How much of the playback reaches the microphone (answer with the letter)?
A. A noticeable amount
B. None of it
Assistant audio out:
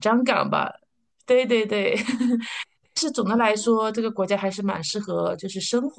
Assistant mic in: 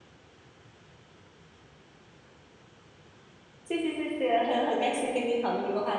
B